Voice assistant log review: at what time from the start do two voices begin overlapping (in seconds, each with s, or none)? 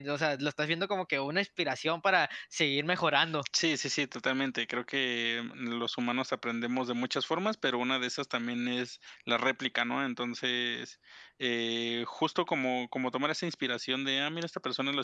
none